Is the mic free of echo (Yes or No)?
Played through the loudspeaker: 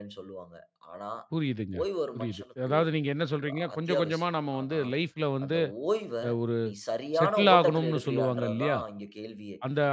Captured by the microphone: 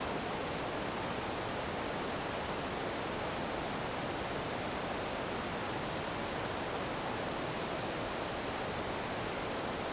Yes